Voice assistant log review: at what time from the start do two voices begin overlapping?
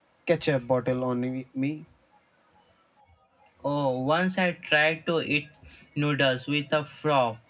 none

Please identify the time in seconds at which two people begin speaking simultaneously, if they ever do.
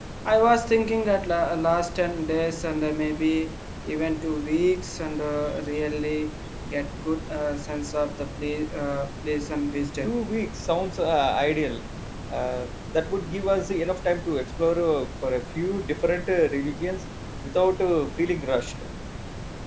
none

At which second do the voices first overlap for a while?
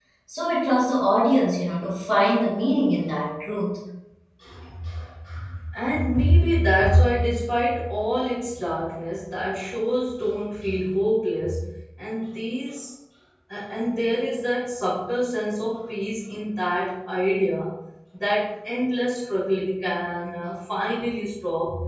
none

